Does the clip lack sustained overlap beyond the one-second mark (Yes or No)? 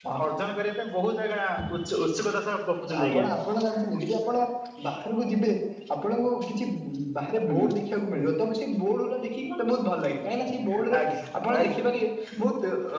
Yes